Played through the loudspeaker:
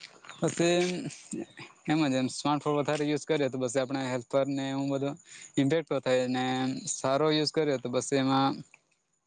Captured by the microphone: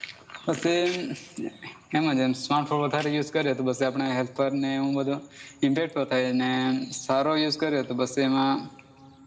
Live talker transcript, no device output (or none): none